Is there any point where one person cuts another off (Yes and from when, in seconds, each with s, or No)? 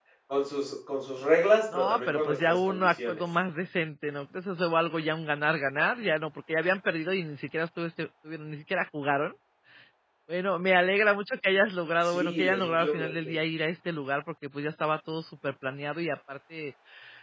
Yes, from 1.7 s